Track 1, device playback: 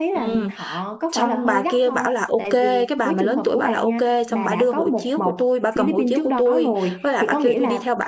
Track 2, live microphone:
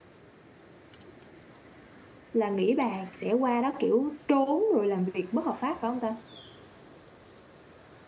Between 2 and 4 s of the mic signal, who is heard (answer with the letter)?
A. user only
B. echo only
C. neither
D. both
A